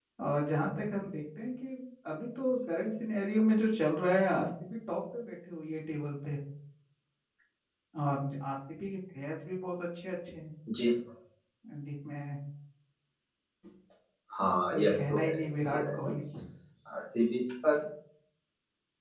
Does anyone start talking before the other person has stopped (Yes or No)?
Yes